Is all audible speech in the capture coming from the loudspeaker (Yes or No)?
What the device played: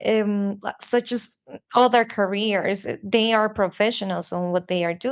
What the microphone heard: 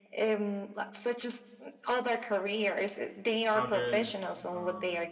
No